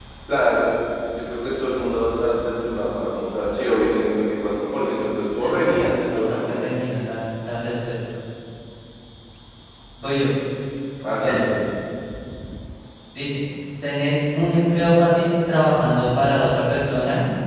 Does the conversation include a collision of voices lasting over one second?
Yes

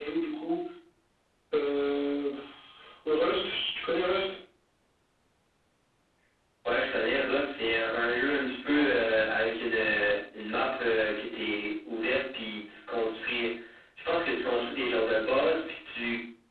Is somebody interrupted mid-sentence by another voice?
No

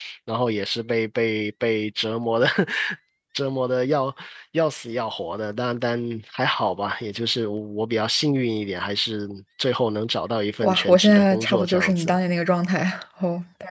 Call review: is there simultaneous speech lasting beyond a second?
Yes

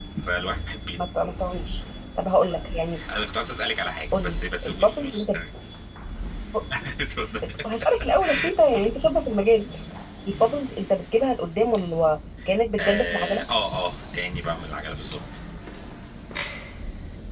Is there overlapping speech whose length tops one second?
Yes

